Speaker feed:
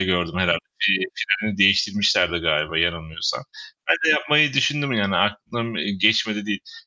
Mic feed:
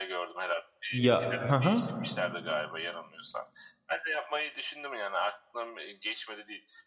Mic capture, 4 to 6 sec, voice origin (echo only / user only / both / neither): echo only